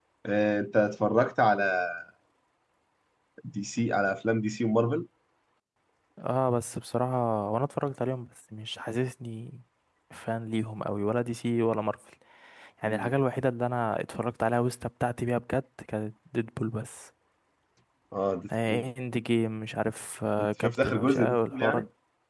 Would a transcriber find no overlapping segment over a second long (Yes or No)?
No